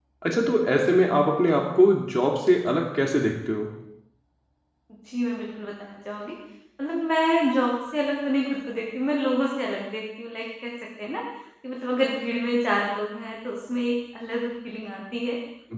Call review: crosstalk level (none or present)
none